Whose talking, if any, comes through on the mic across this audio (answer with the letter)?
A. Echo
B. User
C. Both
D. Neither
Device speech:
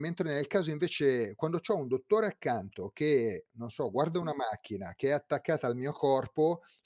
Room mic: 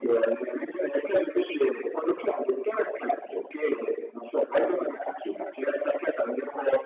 A